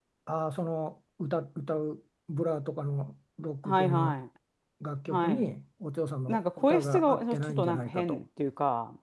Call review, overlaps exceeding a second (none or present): present